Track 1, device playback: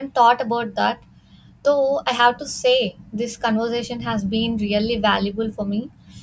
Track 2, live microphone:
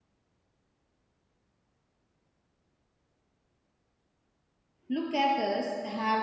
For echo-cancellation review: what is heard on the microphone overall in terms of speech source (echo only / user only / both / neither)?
user only